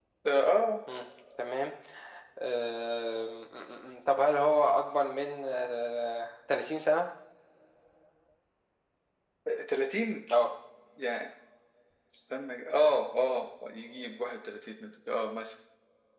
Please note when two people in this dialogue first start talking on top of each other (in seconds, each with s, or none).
none